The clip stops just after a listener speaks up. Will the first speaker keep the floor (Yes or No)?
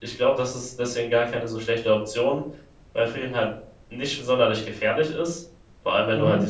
Yes